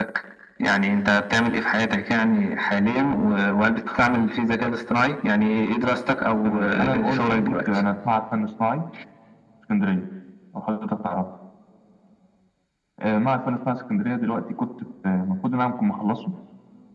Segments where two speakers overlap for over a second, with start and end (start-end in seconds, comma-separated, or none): 6.5-7.7